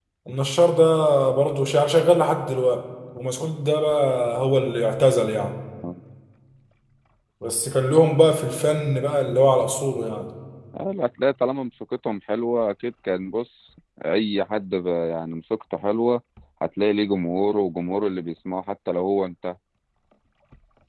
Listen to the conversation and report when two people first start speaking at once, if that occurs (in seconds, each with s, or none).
none